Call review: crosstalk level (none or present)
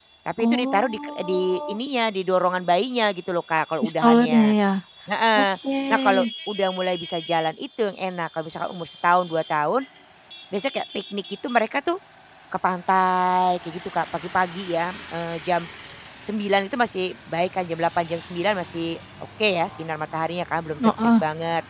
present